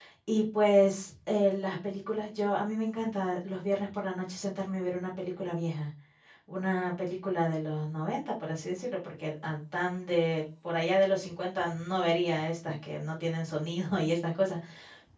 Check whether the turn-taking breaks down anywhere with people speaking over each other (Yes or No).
No